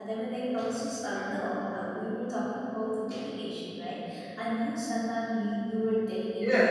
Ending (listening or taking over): taking over